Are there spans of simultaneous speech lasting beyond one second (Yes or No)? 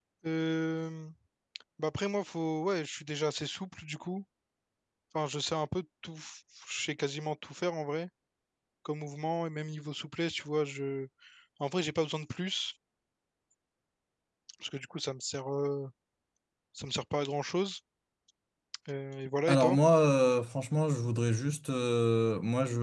No